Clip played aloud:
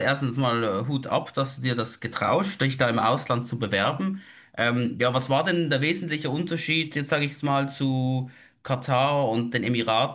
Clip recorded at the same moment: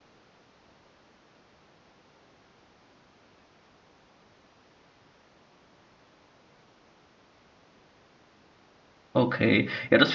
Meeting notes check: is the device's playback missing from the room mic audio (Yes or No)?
Yes